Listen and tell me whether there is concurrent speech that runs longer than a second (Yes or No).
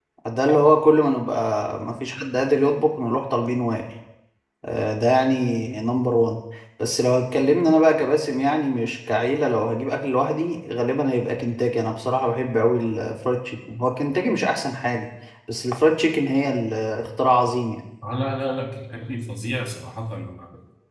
No